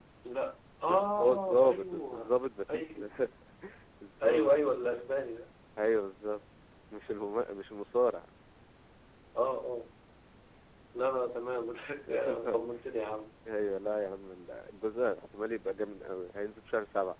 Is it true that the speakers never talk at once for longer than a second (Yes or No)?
No